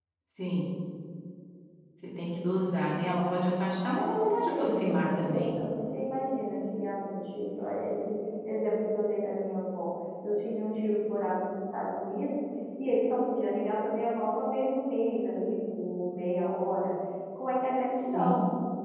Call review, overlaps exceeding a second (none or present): present